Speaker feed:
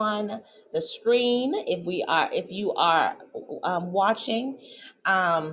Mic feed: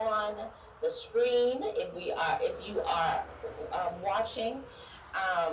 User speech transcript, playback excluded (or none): none